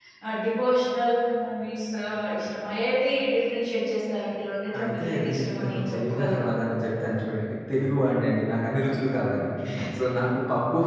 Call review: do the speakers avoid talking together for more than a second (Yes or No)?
No